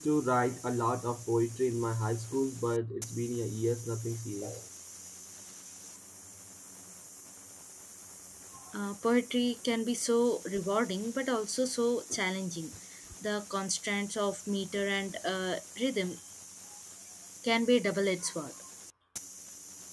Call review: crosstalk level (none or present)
none